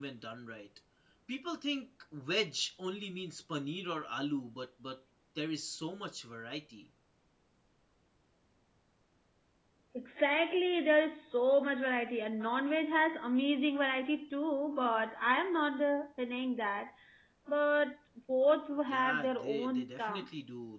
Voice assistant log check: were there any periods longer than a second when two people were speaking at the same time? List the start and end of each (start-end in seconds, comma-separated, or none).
18.9-20.3